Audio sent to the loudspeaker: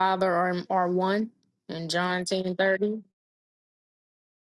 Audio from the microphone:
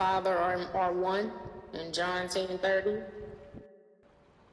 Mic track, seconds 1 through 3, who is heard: echo only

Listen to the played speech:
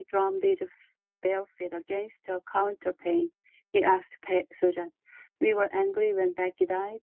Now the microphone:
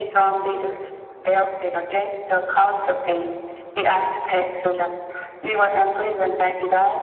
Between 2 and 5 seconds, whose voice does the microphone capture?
echo only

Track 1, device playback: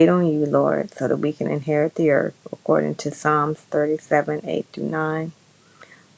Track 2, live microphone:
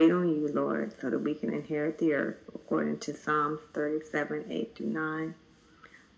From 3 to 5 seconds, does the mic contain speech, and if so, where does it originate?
echo only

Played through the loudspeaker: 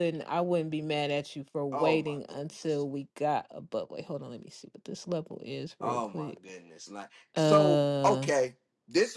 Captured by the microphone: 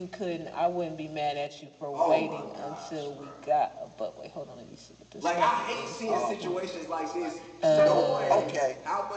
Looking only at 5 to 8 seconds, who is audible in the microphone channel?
both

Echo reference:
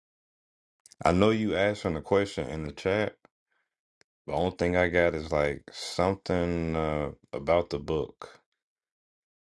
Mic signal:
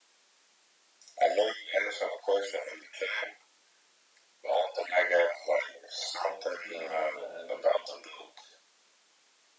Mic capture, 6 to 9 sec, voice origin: both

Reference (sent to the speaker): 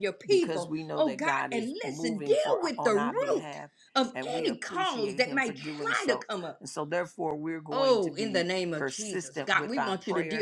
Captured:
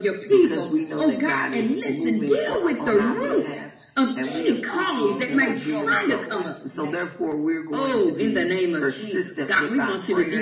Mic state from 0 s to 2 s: echo only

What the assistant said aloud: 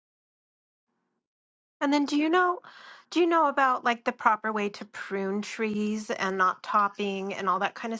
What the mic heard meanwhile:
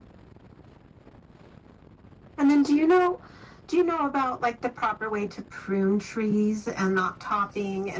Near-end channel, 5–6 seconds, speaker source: echo only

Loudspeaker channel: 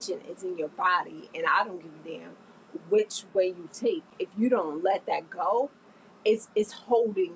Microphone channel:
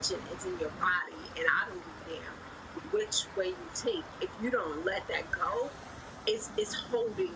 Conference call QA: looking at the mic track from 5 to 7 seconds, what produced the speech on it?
echo only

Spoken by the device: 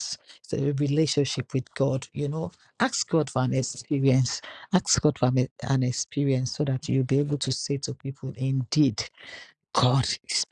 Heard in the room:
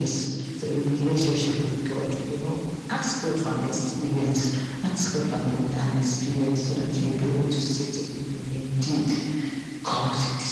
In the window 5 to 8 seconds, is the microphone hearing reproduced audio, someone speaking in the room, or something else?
echo only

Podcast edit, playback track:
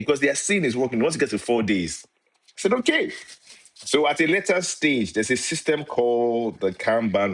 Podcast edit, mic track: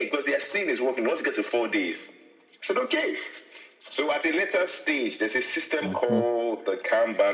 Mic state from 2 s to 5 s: echo only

